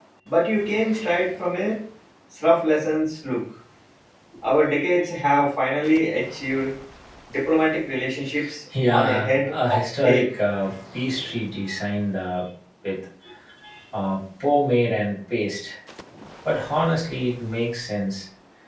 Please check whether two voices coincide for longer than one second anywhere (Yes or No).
Yes